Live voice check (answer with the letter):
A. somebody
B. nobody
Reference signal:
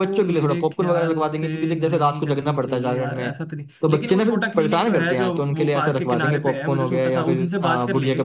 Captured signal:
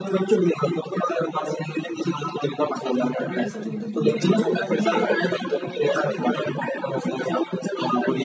A